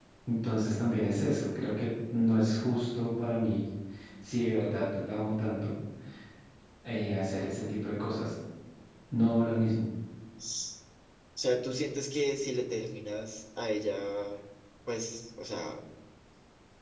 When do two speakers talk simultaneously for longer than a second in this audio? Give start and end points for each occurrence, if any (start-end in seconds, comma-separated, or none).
none